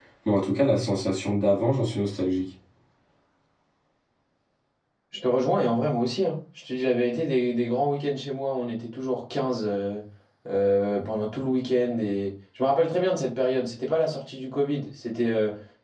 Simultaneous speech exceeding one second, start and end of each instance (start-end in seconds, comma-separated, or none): none